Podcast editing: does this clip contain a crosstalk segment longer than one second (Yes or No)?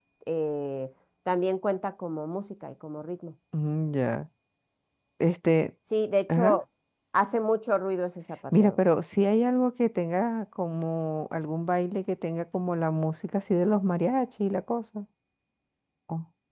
No